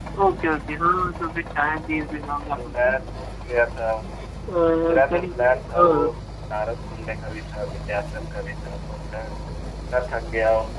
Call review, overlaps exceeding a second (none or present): present